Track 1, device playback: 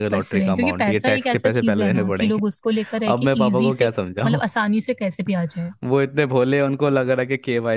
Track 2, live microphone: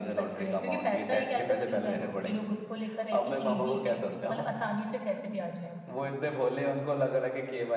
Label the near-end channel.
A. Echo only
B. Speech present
A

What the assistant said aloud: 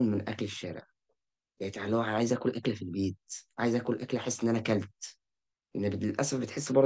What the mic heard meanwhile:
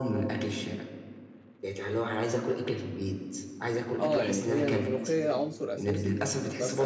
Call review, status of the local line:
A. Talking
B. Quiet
A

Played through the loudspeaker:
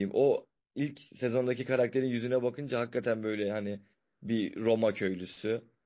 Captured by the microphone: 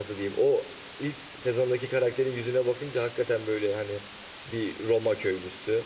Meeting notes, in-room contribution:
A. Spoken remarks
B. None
B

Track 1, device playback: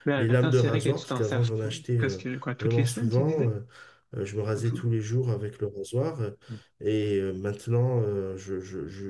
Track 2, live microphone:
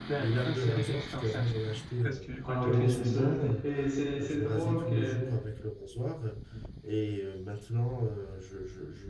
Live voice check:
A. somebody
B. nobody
A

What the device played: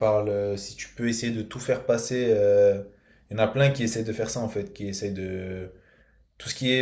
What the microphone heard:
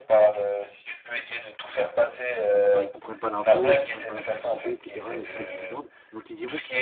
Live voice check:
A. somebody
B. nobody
A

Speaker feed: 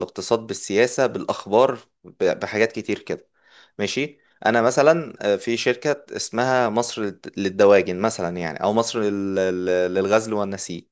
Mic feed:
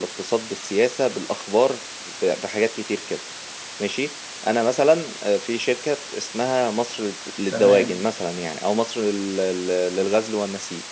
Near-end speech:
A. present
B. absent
A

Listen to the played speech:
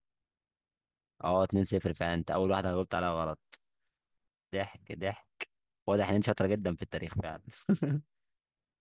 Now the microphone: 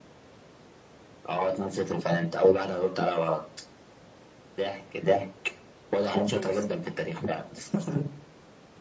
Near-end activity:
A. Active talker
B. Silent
A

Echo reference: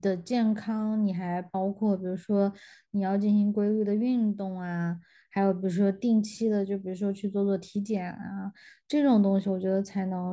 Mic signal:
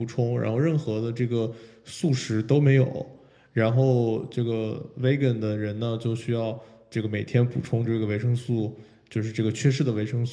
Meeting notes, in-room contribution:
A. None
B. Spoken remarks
B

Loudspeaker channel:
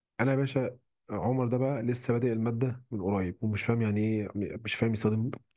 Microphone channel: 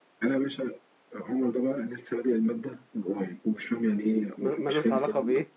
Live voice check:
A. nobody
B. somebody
B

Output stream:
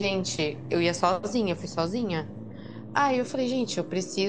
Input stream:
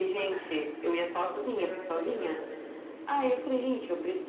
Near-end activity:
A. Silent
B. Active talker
B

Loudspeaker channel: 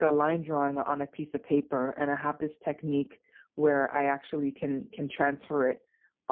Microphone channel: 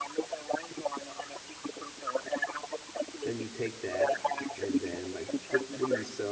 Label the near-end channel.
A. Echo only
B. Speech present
B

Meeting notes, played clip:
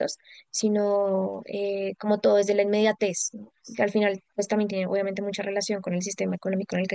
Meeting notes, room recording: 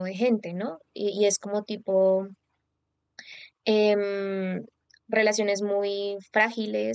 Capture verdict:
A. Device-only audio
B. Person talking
B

